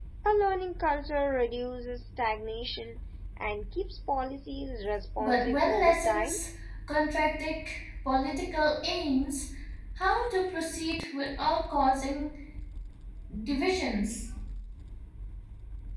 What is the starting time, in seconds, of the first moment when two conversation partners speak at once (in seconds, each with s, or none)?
5.2 s